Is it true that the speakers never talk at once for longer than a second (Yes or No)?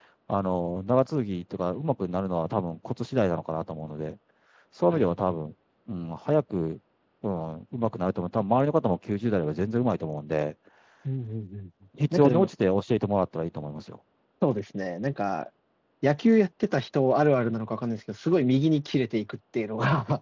Yes